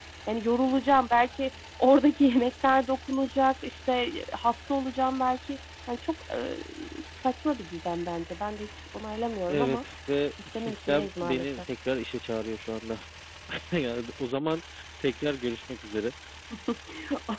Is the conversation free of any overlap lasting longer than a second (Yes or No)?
No